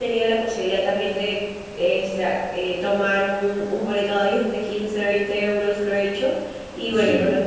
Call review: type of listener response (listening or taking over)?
listening